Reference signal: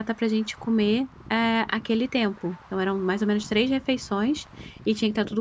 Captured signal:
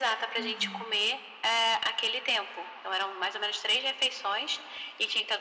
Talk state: both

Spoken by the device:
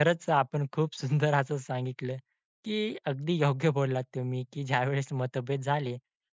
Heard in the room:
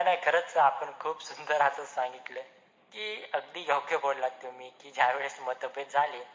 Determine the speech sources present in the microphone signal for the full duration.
echo only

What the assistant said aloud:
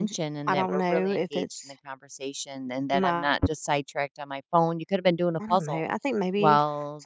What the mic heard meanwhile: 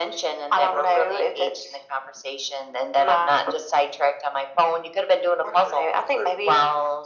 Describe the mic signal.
echo only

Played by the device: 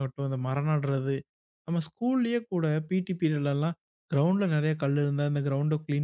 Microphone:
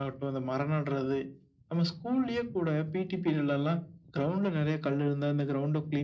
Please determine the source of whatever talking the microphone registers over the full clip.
echo only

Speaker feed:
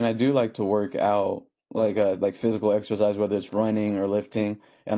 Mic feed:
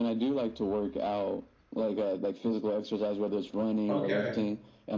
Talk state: both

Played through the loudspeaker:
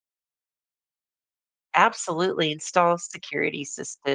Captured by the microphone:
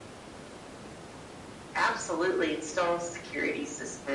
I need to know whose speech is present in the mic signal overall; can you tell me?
echo only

